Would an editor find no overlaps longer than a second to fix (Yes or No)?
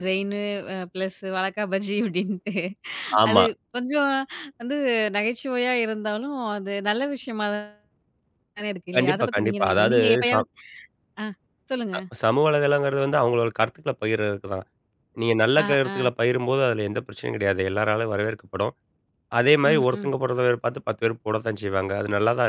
No